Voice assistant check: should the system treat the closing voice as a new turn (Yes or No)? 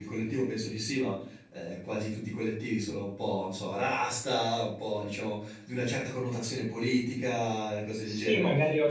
Yes